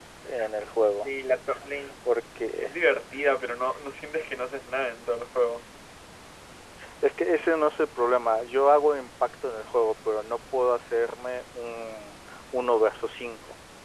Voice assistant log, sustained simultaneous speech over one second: none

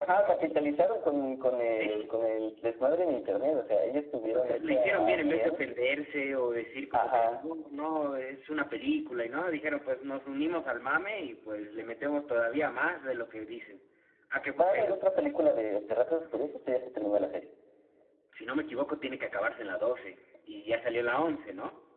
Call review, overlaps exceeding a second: present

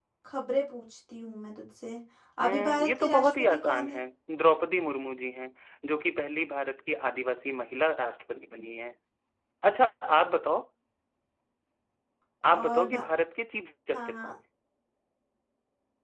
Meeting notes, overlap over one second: present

